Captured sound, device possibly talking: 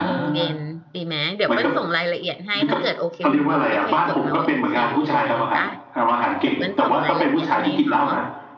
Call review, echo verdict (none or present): present